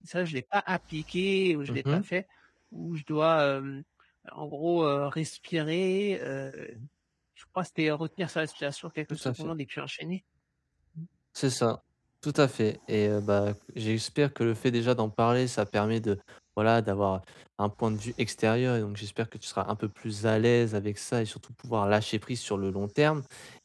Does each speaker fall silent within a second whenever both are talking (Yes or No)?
Yes